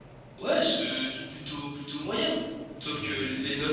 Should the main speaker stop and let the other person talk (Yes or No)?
No